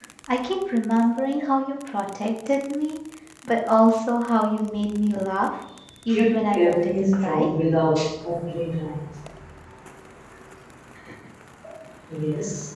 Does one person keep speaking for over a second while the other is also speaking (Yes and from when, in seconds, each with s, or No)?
Yes, from 6.1 s